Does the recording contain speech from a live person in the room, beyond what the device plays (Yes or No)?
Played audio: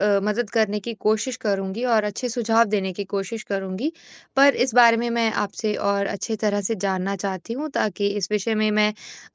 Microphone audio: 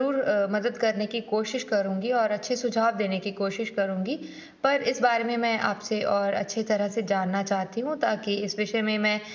No